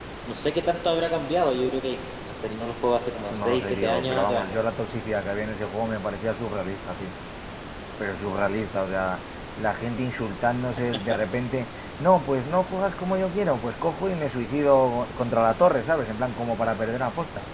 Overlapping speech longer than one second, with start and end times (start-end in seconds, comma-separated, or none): 3.2-4.5